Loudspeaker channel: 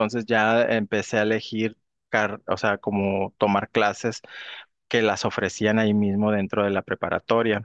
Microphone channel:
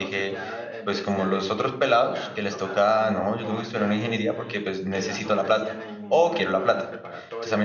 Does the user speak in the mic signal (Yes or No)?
Yes